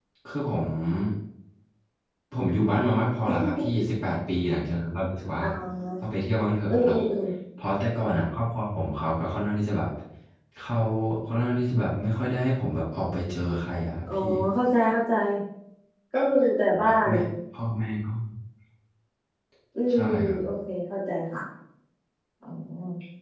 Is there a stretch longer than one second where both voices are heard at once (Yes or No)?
No